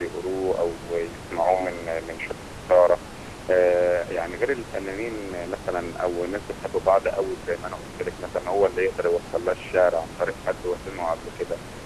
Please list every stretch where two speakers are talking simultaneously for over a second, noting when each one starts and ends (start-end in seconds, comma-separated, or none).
none